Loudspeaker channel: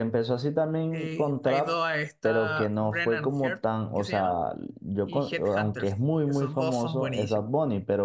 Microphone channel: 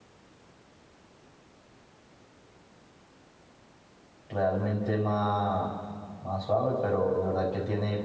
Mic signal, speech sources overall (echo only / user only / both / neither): user only